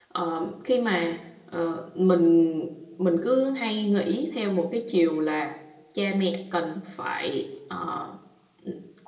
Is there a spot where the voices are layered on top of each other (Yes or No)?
No